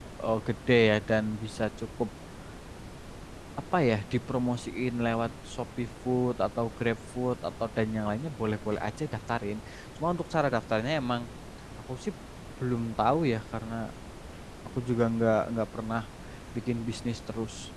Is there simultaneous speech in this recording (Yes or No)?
No